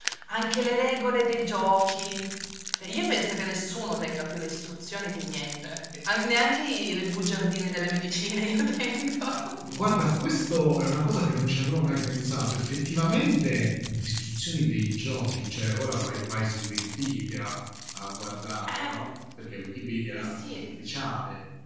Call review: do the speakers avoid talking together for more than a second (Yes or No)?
Yes